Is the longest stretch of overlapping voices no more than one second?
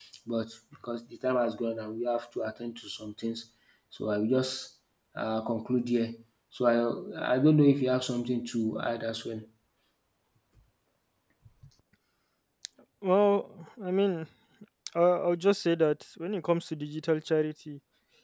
Yes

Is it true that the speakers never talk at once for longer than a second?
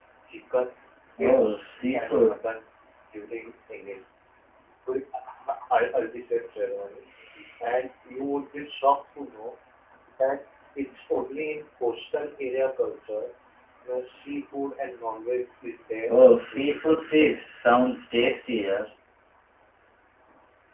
No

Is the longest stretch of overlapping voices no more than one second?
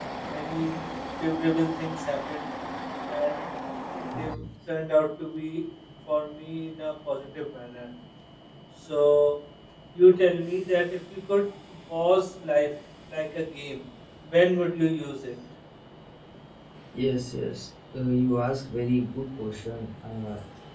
Yes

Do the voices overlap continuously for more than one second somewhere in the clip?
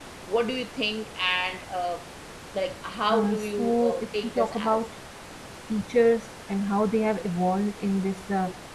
Yes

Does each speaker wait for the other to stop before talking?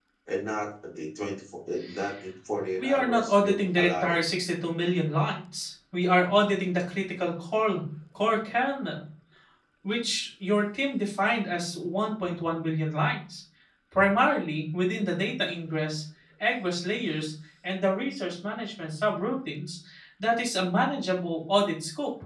No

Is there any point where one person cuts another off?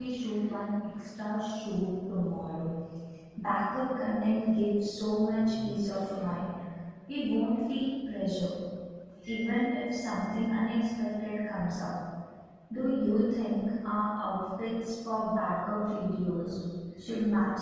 No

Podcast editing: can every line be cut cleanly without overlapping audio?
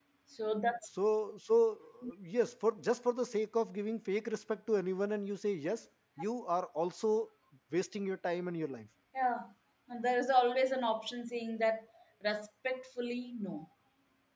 Yes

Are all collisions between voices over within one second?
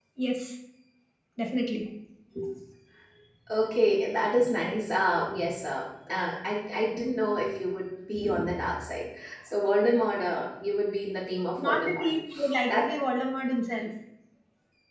Yes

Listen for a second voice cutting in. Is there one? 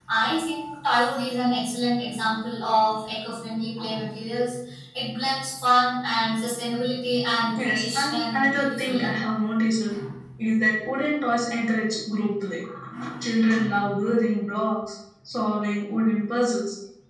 Yes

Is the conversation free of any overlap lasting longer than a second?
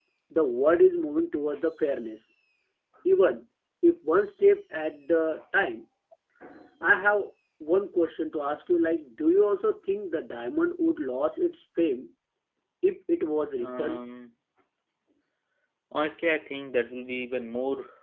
Yes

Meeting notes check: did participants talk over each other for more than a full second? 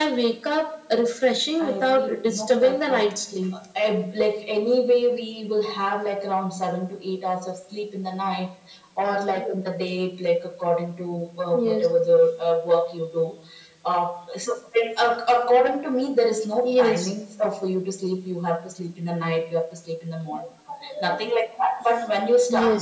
Yes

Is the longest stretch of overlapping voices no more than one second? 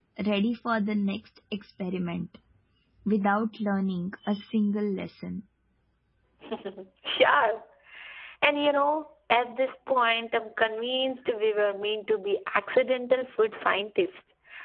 Yes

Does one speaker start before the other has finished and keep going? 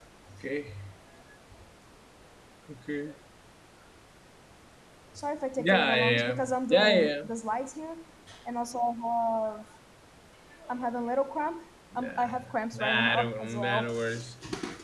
Yes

